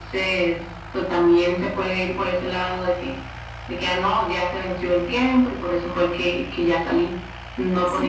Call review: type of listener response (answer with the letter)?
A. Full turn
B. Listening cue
A